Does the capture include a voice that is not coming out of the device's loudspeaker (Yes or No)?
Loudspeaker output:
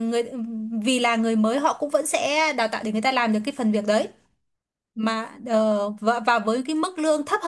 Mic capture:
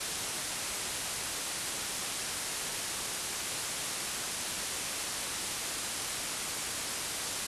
No